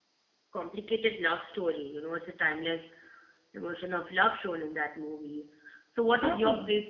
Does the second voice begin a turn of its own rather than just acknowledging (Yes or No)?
No